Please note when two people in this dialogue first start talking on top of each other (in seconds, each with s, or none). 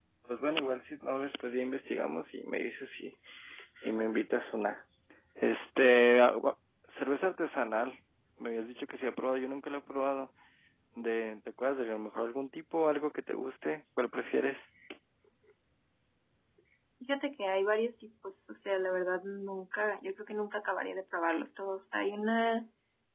none